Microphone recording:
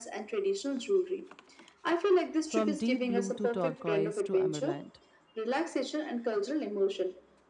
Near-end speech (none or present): present